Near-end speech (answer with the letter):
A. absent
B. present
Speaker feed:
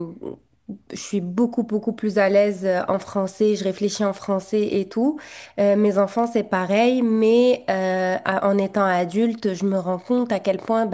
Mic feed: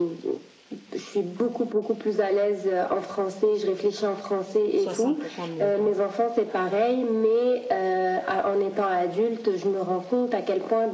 B